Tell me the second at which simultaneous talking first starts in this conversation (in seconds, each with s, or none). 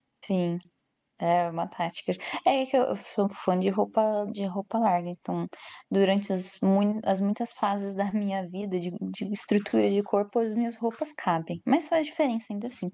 none